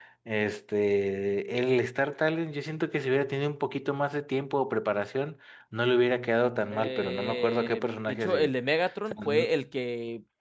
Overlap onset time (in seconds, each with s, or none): 6.7 s